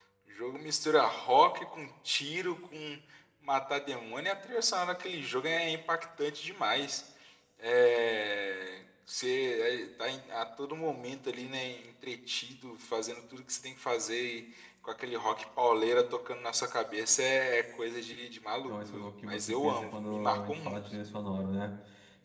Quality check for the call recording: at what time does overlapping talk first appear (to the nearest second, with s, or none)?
19 s